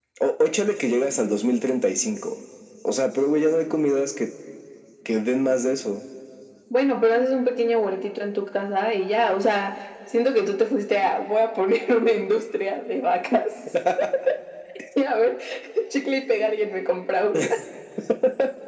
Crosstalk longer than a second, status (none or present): none